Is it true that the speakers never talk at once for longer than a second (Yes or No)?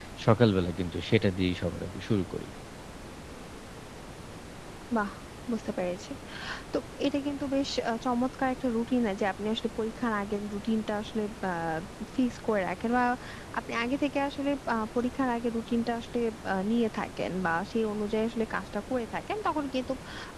Yes